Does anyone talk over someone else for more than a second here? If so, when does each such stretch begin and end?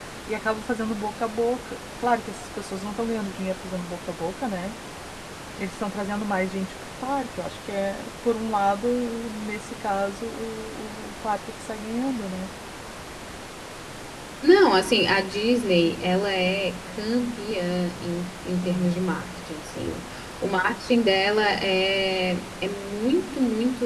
none

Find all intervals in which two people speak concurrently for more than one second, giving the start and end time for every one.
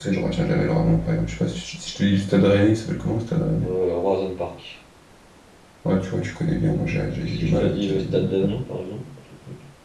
7.2-8.6

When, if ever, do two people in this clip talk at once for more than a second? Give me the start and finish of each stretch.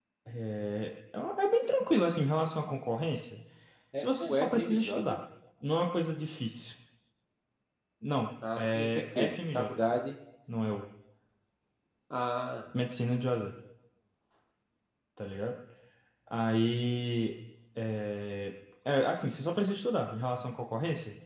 4.0-5.2, 8.6-10.0

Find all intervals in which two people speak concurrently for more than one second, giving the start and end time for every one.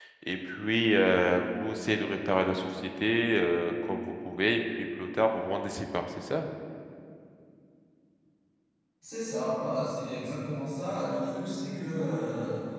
none

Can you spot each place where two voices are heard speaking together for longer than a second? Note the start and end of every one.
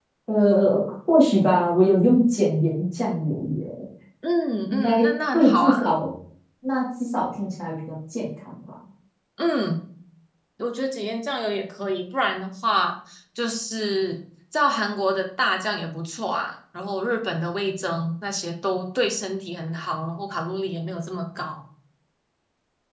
4.7-6.0

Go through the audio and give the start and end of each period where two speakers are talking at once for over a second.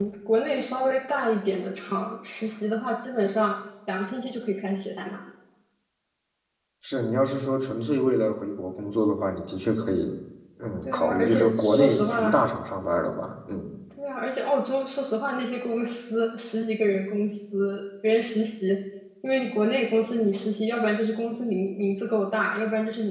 10.8-12.4

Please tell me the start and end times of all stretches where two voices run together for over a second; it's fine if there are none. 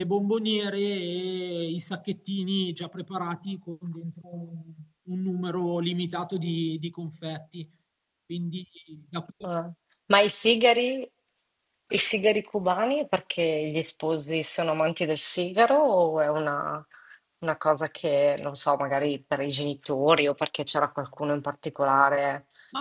none

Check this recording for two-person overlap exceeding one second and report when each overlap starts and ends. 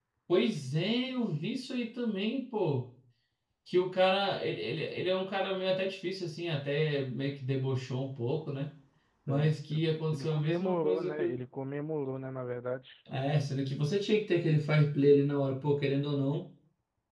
10.1-11.4

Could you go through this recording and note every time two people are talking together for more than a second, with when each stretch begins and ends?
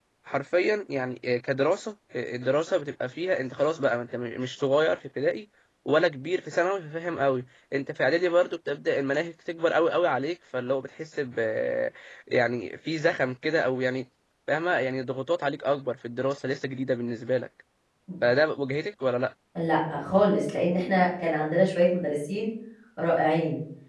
none

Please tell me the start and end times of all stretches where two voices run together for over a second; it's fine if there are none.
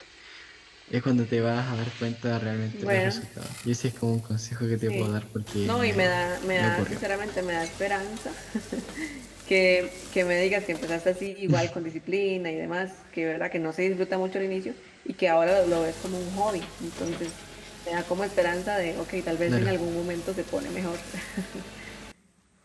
5.7-7.0

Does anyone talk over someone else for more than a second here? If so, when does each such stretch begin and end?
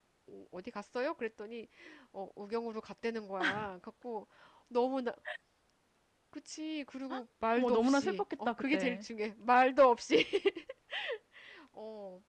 7.6-9.1

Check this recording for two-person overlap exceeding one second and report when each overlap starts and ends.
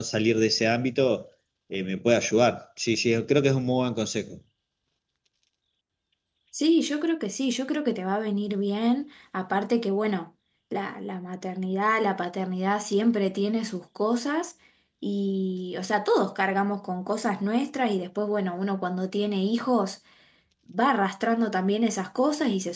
none

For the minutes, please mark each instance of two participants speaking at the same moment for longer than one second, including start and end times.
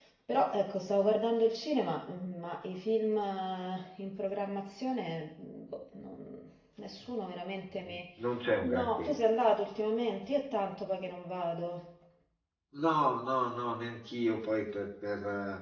none

